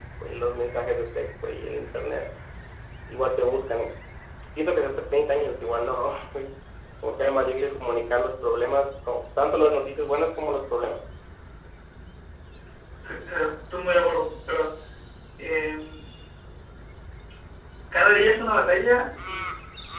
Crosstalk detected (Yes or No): No